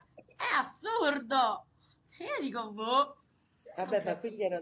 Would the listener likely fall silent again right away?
No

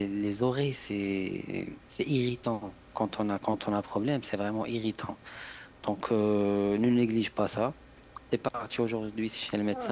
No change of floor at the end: No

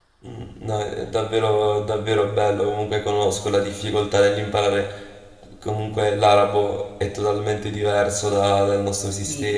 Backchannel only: Yes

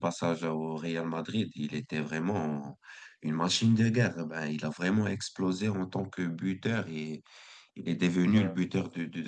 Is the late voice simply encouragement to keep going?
Yes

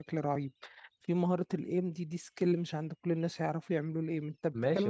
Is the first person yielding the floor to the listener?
Yes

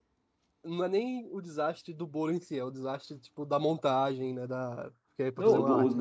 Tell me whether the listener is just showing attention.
No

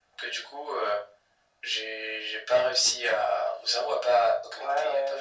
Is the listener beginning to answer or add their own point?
Yes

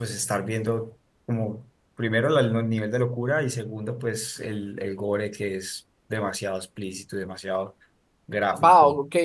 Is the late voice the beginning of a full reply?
Yes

